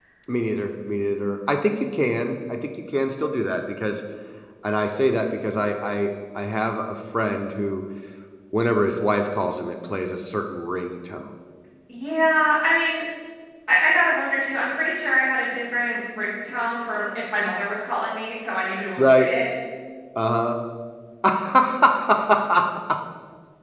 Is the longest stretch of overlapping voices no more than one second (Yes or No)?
Yes